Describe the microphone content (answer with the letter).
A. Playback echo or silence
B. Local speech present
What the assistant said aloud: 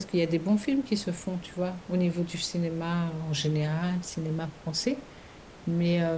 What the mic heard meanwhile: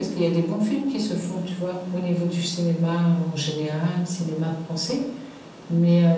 A